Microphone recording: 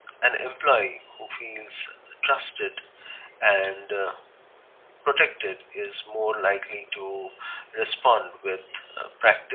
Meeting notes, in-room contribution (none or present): none